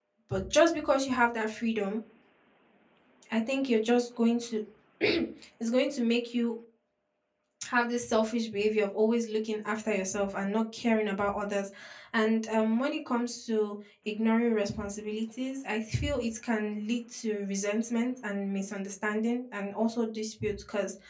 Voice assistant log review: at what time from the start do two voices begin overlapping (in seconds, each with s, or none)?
none